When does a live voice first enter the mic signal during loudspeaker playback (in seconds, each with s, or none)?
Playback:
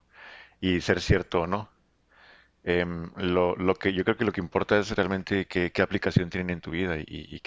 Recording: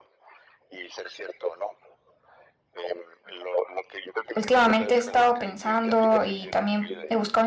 4.3 s